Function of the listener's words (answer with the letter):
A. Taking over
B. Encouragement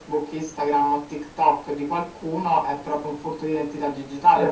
A